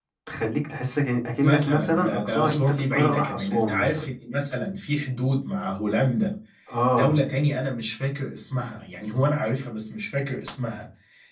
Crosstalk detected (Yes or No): Yes